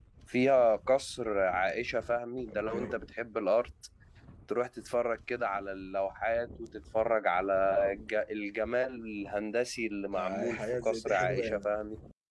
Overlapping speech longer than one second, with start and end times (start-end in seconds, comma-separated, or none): 10.1-11.7